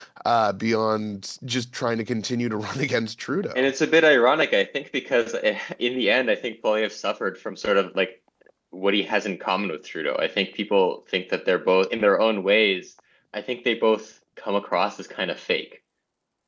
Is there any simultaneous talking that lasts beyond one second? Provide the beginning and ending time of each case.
none

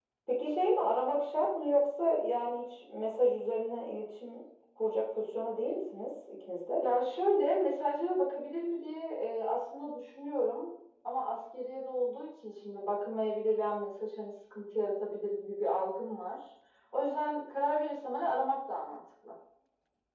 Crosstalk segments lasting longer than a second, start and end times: none

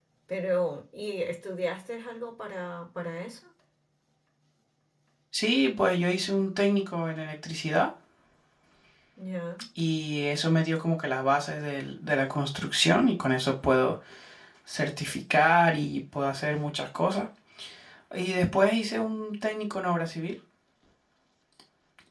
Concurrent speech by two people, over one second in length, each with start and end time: none

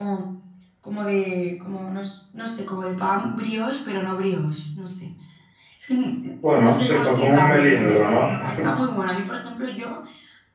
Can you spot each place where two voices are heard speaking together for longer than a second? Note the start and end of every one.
6.5-8.1

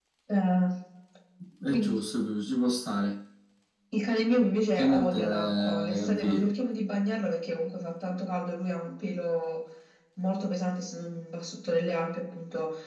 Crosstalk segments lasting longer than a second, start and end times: 4.8-6.5

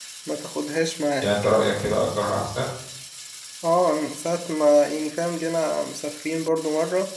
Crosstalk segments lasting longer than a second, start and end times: none

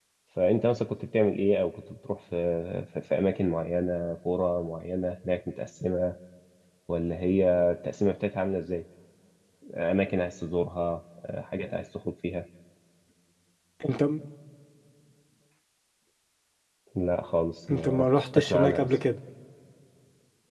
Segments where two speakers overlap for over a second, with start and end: 17.7-18.9

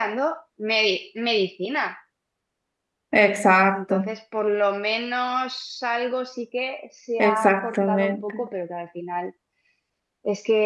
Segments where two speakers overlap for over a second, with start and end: 7.2-8.4

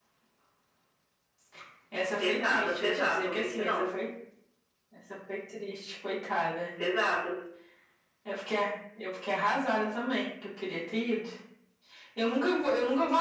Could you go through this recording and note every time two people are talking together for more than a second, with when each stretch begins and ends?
2.2-3.7

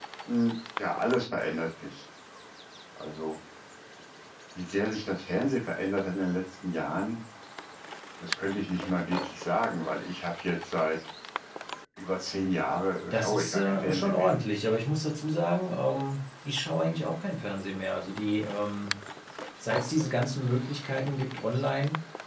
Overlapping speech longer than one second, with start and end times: 13.1-14.3

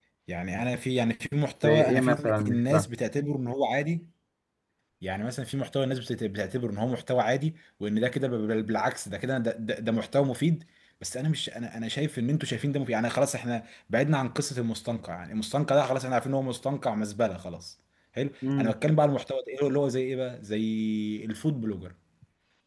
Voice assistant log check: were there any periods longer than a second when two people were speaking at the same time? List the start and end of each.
1.6-2.9

